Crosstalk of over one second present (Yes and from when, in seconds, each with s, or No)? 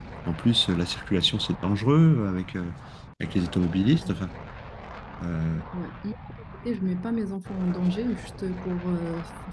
No